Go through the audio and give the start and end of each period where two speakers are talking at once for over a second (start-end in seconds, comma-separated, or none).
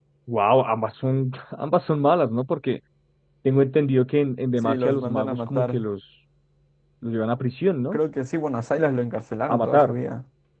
4.6-5.8